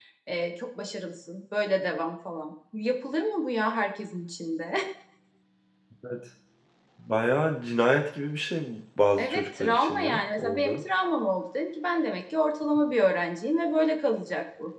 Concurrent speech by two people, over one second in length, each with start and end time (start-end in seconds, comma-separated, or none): 9.2-10.8